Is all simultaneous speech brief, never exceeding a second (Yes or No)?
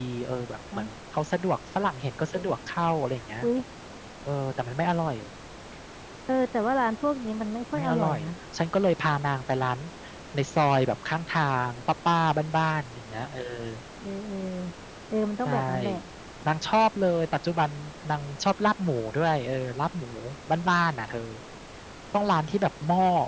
Yes